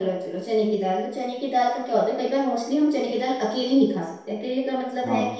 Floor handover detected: No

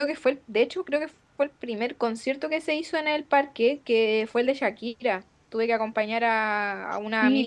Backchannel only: No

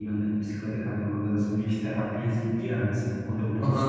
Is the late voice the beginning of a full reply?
Yes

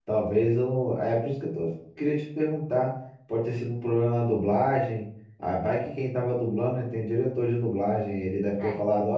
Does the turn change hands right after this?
No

